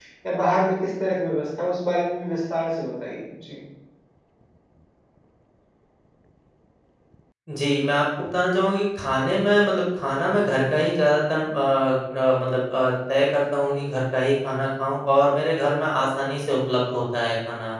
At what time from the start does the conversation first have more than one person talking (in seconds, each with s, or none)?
none